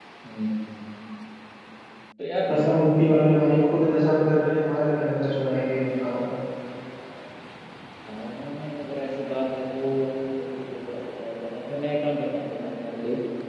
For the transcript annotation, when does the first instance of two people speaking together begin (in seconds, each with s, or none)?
none